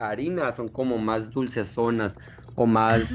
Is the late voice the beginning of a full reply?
No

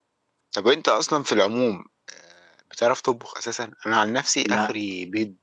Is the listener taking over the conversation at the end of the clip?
No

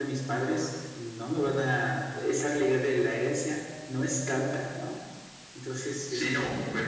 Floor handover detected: Yes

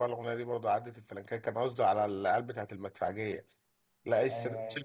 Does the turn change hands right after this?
No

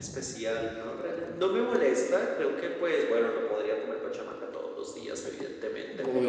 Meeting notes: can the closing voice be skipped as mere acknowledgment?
Yes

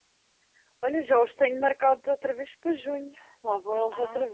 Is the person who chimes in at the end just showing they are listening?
No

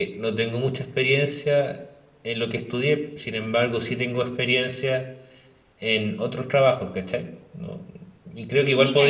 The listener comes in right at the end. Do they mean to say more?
No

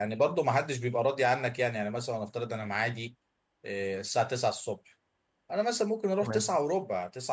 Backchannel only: Yes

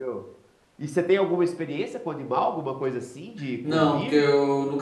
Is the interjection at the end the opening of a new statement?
Yes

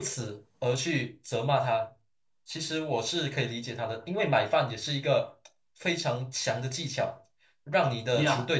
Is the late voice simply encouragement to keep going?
No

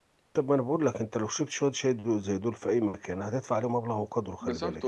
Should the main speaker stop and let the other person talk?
Yes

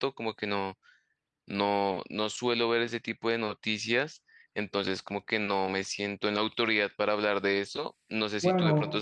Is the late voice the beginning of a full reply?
No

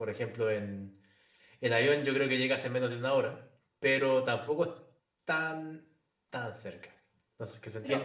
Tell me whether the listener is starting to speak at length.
No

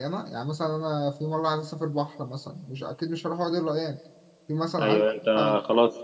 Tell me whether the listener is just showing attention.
No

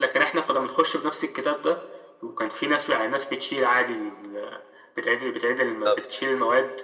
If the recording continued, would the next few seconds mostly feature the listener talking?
No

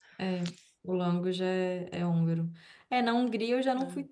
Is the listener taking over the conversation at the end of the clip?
No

